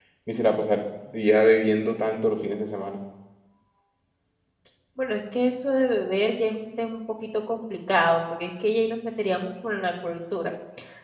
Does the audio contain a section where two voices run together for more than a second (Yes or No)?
No